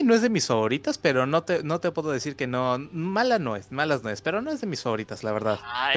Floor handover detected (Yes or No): Yes